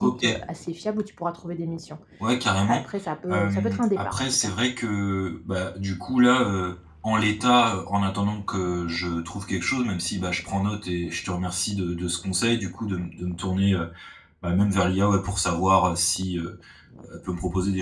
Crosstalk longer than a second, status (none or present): present